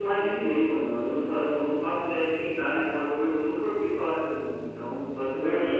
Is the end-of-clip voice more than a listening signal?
Yes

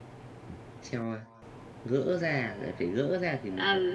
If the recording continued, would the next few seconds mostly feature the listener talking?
Yes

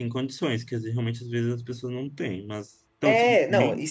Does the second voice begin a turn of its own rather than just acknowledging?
Yes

